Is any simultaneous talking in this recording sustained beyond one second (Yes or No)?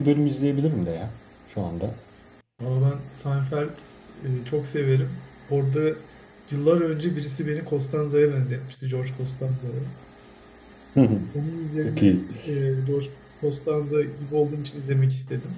No